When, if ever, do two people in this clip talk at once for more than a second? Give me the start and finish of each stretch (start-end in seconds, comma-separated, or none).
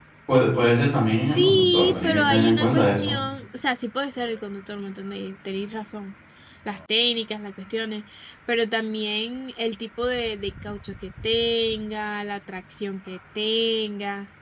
1.3-3.2